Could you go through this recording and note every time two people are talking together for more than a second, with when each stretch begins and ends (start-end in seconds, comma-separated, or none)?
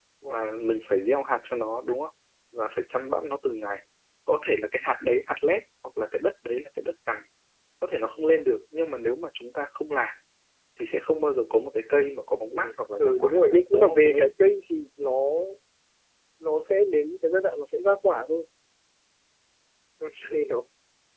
13.0-14.3